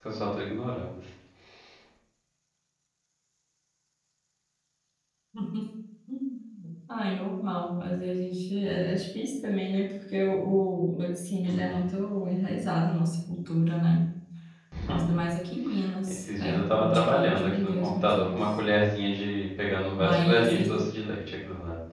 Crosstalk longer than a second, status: present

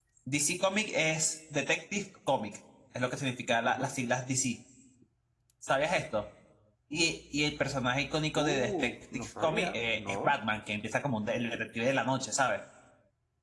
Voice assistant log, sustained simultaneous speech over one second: present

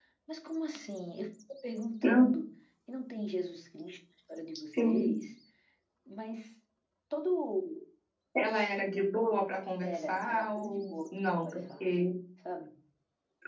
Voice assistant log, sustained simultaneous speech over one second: present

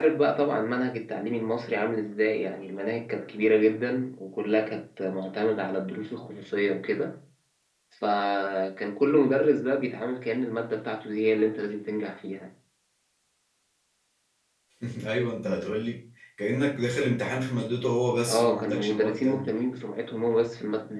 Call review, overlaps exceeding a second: present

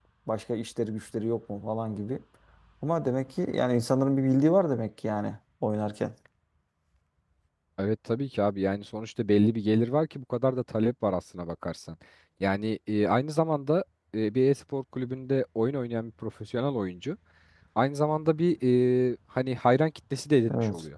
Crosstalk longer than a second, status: none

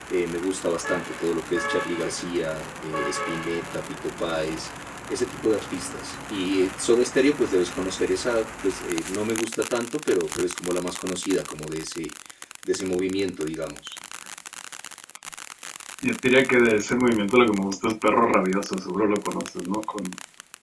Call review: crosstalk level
none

